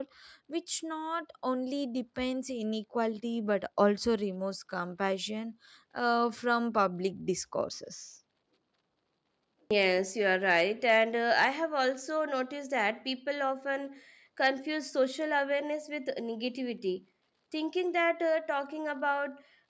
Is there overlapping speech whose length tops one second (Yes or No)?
No